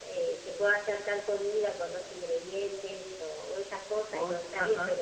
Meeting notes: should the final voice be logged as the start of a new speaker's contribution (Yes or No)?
No